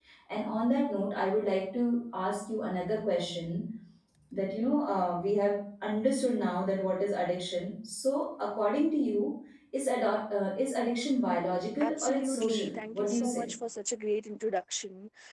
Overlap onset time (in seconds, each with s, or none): 11.8 s